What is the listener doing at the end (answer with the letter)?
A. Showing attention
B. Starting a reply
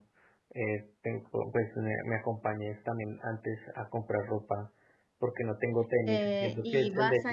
B